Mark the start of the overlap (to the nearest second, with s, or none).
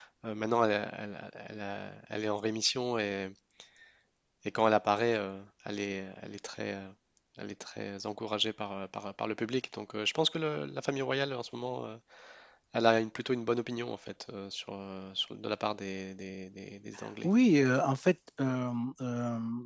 none